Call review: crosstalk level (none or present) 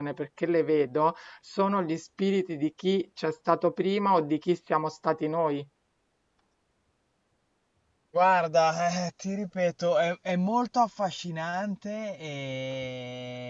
none